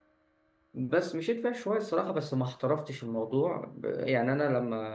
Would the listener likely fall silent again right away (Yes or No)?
Yes